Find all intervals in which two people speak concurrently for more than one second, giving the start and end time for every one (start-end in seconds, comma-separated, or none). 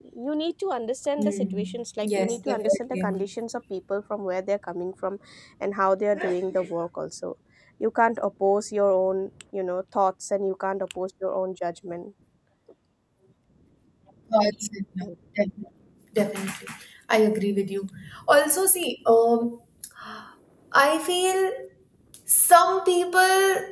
1.2-3.3